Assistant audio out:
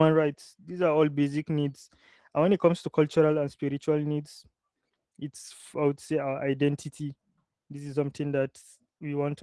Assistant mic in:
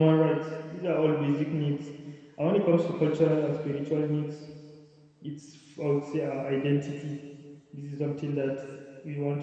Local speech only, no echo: none

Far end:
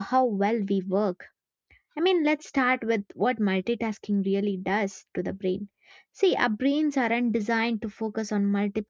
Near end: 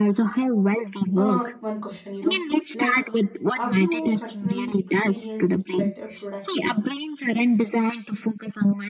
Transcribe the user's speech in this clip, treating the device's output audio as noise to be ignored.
uh, one question. You know, like, have you personally experienced better productivity?

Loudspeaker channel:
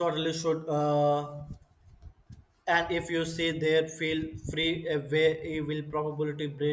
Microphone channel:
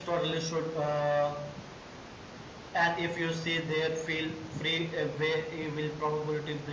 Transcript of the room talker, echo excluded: none

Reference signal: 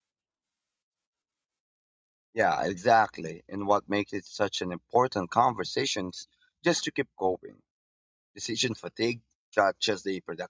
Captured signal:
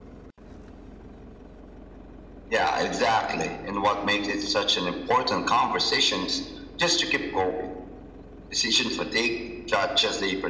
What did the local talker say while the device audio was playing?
none

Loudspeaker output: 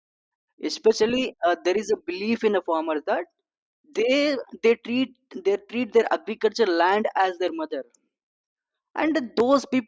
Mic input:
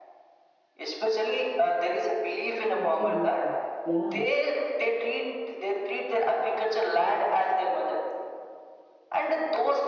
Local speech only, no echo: Absolutely. Yeah.

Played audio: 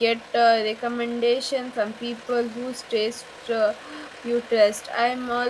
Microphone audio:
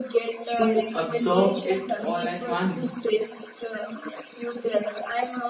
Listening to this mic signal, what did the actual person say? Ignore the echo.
to absorb it all at once.

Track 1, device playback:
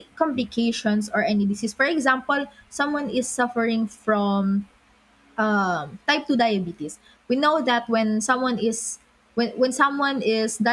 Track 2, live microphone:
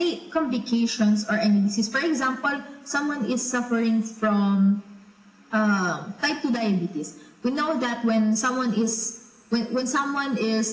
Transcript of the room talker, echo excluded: none

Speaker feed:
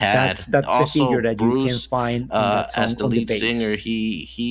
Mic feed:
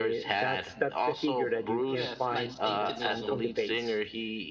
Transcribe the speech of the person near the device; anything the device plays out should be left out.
Yes, like Satanism.

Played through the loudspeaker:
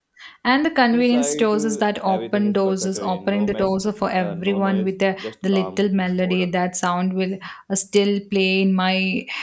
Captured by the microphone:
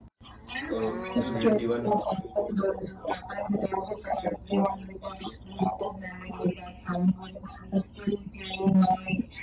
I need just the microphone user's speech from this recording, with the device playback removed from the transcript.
uh, you didn't even

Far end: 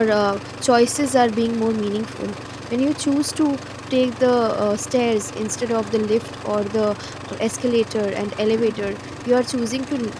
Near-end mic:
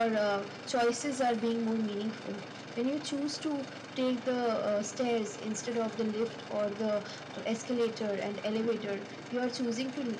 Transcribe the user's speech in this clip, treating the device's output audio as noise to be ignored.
none

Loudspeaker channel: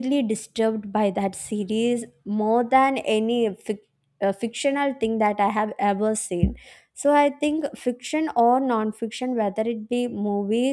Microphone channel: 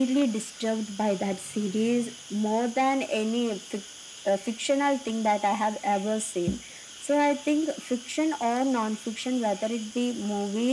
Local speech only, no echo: none

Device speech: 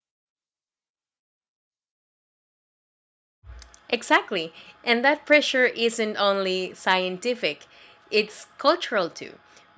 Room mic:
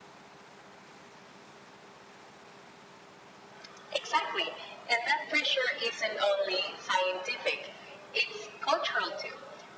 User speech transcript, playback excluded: none

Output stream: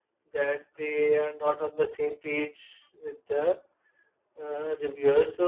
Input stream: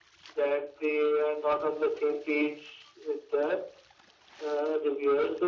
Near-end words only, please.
none

